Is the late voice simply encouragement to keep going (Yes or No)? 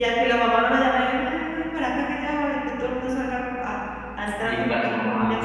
No